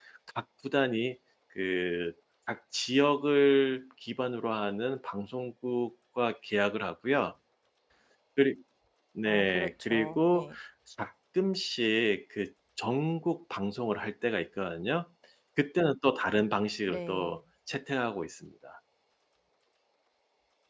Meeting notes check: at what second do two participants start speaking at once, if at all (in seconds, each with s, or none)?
9.2 s